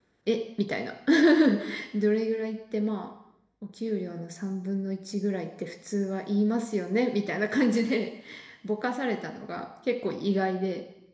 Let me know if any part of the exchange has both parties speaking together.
No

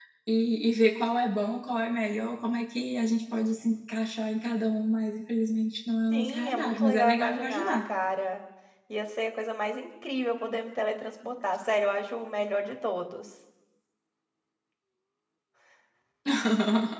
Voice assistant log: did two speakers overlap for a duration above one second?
Yes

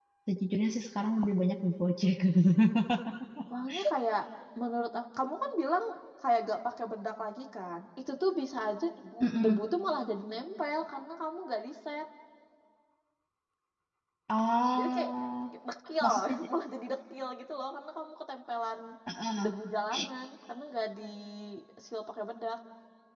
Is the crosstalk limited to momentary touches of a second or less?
Yes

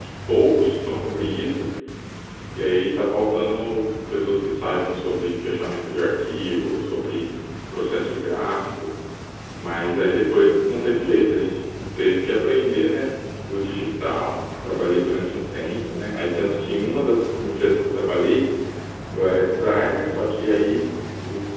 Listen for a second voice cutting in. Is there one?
No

